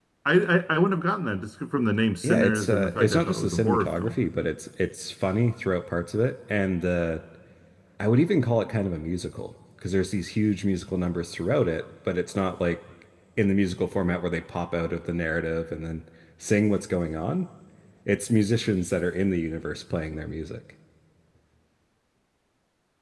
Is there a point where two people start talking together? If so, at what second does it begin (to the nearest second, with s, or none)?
2 s